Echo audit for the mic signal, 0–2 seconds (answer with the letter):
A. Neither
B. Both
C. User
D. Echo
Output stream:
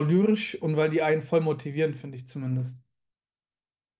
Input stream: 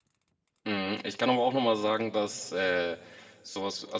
C